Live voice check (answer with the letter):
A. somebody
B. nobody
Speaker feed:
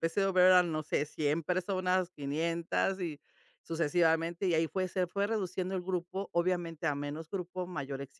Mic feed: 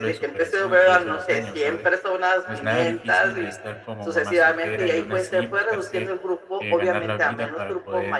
A